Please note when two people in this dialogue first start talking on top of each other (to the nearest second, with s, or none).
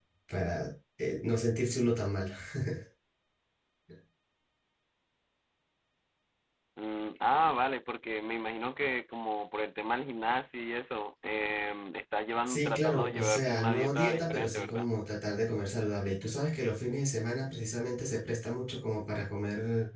12 s